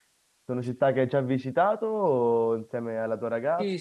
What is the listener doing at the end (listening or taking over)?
taking over